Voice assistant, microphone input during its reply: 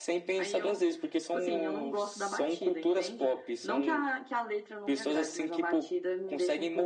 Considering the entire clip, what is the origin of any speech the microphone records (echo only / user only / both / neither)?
echo only